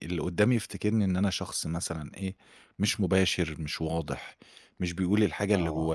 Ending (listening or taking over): listening